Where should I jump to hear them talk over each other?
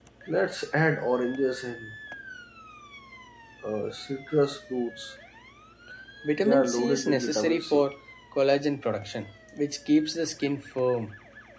6.4 s

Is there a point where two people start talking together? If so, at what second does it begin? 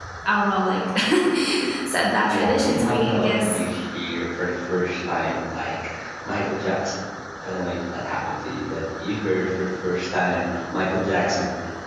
2.3 s

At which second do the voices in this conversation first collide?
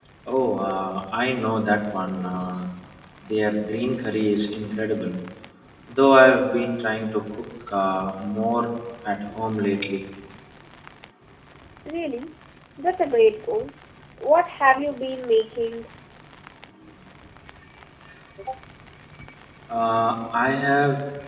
none

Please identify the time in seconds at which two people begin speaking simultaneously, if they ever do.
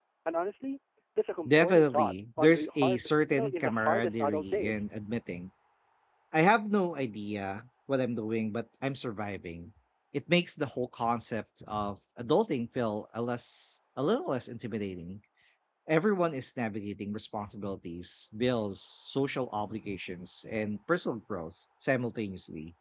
1.4 s

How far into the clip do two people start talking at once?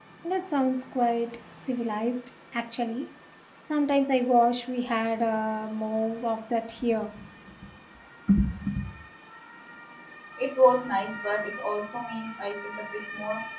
none

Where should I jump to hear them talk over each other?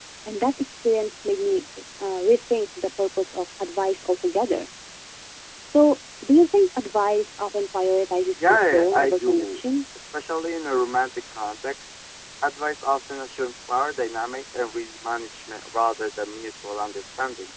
8.4 s

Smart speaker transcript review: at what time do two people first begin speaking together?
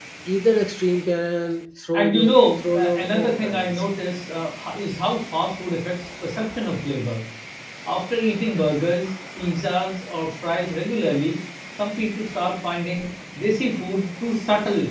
1.9 s

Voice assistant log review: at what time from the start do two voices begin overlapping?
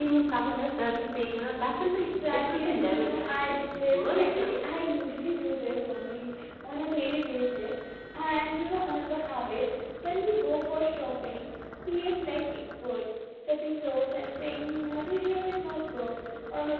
2.0 s

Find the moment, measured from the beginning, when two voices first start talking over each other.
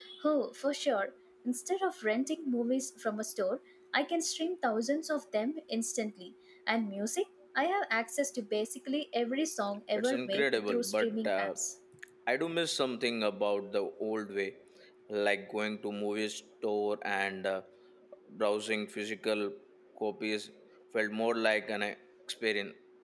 10.0 s

